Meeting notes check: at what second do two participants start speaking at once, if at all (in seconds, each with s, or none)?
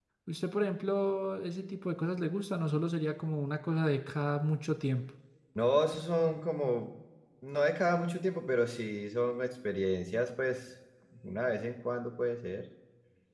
none